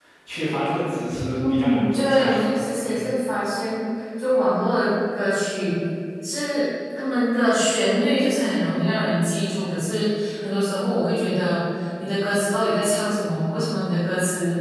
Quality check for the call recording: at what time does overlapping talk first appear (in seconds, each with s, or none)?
1.4 s